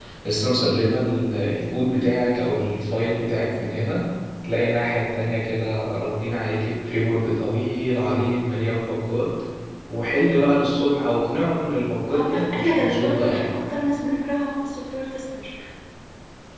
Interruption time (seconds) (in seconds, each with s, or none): 12.1 s